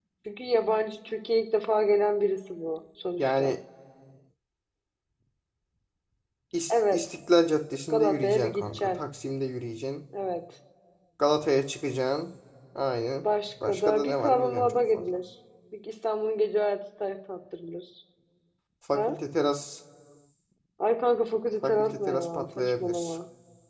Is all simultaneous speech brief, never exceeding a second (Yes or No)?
No